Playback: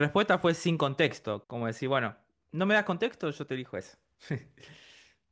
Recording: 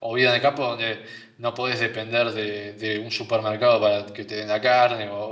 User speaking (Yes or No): Yes